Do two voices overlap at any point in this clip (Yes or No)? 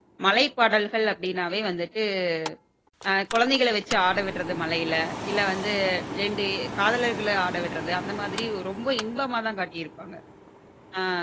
No